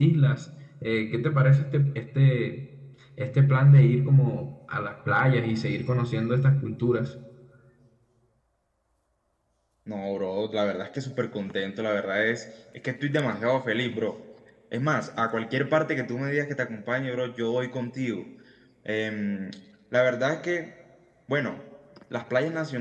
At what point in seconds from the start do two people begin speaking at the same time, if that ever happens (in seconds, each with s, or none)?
none